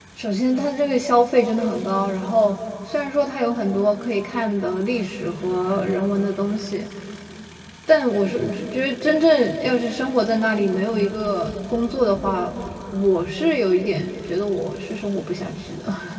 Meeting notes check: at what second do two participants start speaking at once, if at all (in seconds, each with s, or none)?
none